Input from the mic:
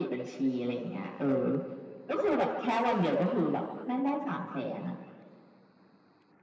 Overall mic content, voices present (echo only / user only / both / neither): echo only